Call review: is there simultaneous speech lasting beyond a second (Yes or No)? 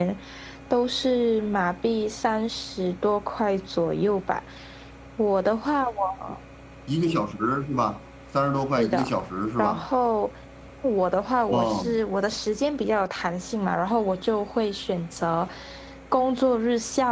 No